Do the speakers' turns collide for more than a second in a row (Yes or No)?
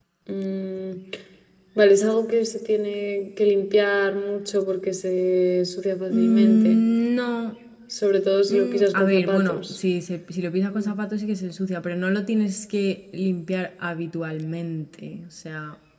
Yes